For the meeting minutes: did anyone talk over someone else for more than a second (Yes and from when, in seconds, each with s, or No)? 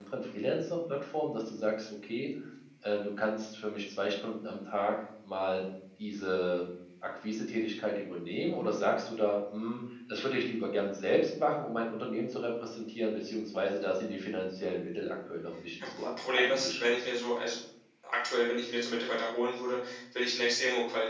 Yes, from 15.8 s